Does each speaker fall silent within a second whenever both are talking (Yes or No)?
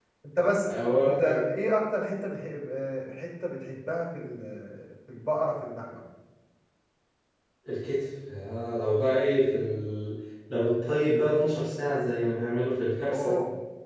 Yes